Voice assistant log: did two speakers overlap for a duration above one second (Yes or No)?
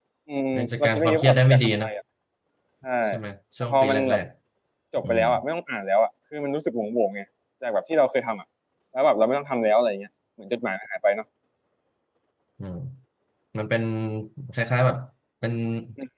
Yes